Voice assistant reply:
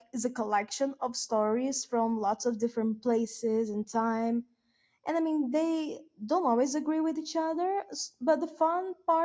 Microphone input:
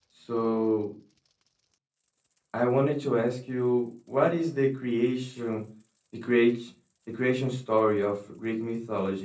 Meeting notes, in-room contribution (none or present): present